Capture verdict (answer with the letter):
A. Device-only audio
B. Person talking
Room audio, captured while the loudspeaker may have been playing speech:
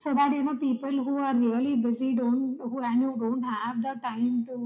A